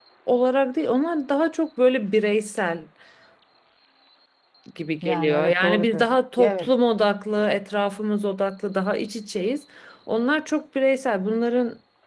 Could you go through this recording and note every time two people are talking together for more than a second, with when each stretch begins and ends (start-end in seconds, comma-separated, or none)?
5.0-6.7